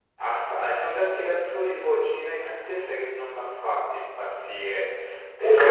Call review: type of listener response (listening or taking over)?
listening